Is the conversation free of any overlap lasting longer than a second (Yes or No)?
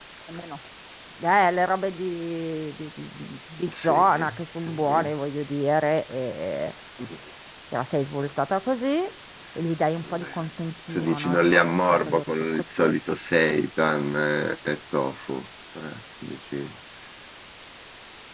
No